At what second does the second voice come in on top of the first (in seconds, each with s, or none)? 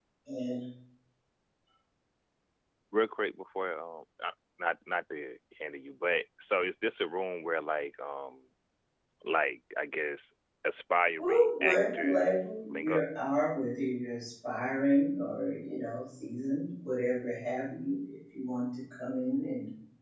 11.2 s